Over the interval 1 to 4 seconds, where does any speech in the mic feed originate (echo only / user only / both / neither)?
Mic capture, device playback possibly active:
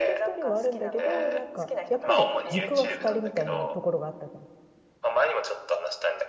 both